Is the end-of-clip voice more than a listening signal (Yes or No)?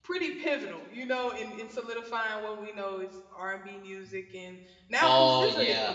No